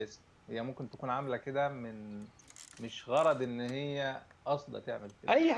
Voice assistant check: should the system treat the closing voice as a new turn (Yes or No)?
Yes